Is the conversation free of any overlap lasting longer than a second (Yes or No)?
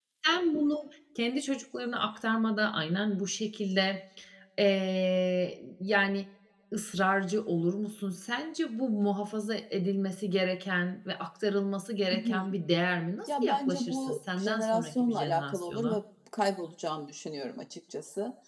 No